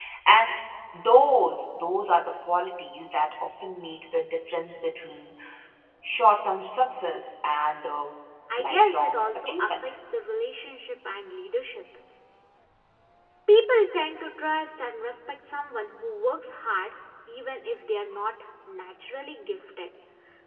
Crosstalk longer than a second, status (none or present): present